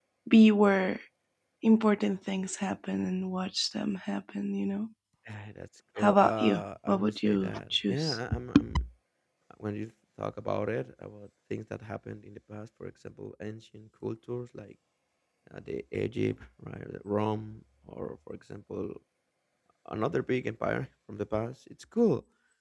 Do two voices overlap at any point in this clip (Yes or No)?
Yes